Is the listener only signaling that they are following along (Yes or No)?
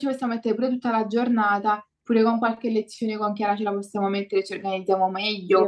No